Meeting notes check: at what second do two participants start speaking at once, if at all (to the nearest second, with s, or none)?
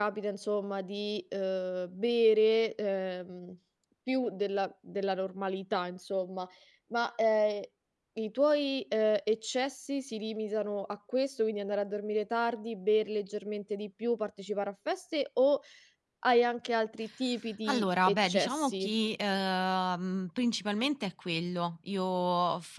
18 s